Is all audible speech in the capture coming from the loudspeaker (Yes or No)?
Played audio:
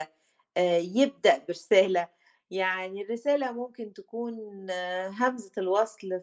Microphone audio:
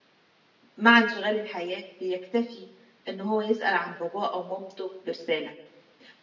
No